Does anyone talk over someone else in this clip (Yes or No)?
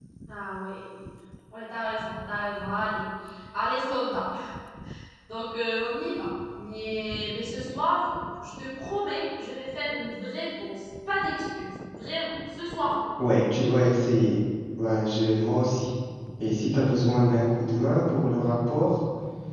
No